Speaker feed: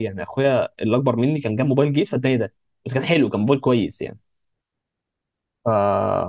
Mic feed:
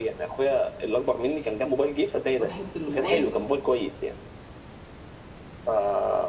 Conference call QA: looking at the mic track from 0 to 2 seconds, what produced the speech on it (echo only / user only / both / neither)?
echo only